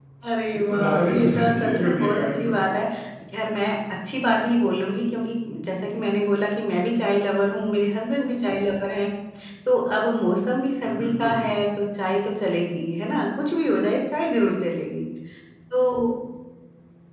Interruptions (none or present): present